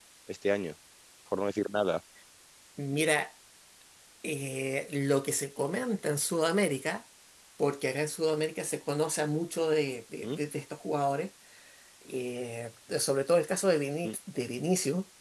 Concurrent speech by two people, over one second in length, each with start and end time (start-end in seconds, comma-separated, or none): none